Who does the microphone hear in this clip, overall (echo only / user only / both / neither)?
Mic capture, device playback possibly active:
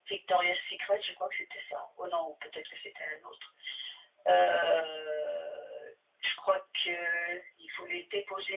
echo only